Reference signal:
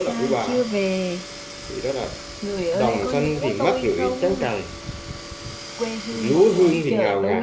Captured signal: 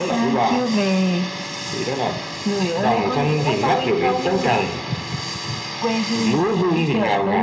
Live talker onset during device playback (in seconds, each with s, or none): none